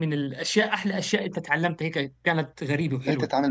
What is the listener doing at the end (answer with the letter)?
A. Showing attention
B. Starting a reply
B